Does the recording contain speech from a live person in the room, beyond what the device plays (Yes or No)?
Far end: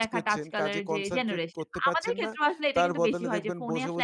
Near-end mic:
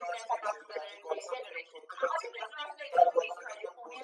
No